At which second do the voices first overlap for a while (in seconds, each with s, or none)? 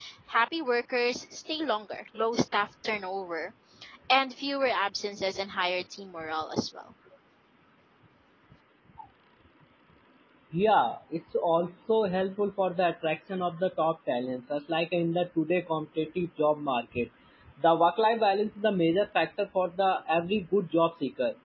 none